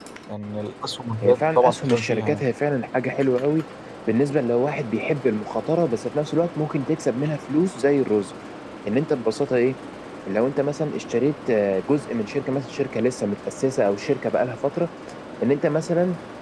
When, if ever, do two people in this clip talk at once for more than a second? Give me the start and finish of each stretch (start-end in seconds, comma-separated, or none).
1.2-2.4